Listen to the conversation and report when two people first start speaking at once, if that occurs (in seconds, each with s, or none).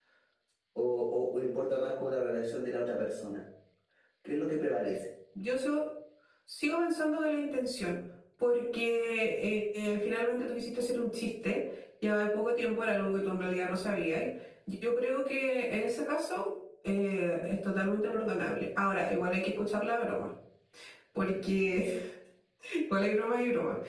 none